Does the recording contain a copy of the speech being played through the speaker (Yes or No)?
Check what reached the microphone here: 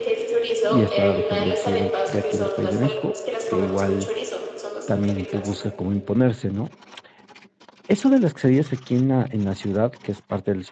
Yes